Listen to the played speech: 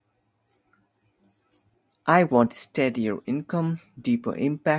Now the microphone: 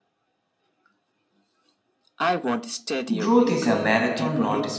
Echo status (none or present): present